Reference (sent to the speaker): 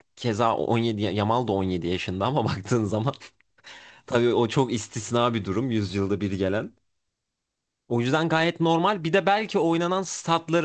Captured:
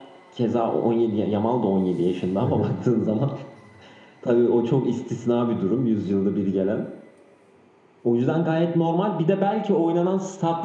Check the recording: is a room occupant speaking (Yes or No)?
Yes